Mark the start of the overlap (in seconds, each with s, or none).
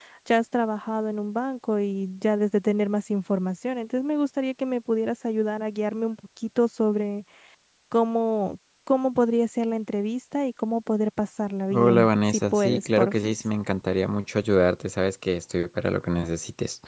11.7 s